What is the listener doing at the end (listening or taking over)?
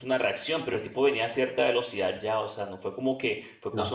listening